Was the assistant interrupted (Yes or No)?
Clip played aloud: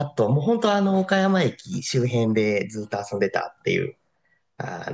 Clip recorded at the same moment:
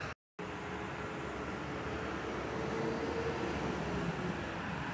No